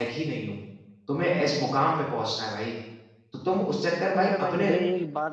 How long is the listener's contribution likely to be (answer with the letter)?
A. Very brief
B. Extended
B